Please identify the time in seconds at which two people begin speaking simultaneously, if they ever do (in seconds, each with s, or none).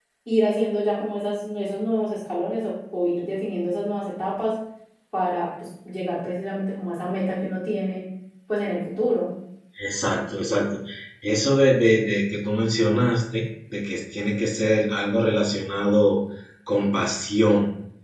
none